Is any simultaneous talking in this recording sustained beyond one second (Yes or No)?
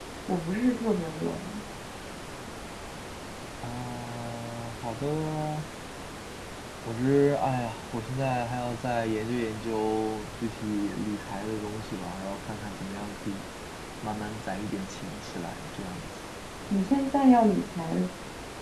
No